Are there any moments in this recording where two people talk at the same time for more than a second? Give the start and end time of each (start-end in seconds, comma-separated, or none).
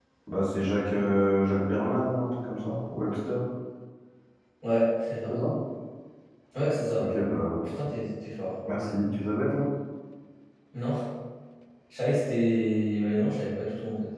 none